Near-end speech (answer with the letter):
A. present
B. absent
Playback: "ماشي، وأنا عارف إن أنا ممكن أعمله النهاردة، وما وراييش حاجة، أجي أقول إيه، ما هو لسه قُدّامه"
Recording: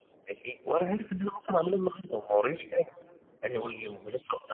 B